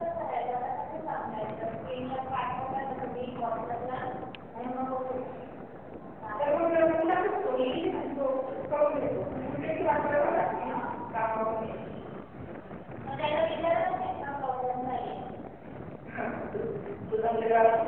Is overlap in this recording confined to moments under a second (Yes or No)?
Yes